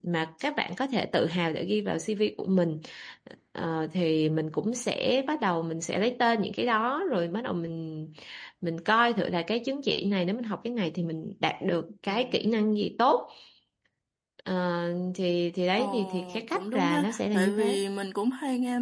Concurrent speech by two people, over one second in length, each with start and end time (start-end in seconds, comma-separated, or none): 15.8-17.8